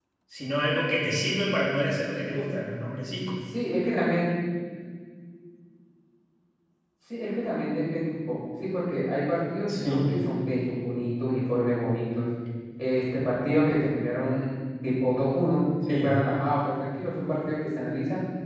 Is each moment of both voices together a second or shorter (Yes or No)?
Yes